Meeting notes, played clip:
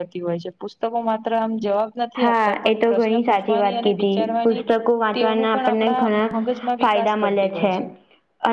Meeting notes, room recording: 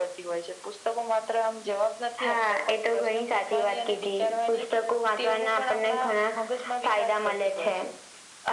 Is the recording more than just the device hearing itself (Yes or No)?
No